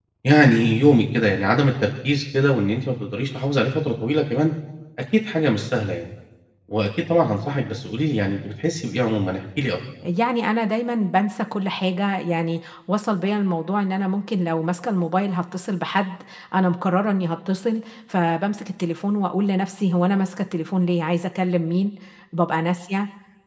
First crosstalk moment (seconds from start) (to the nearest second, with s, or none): none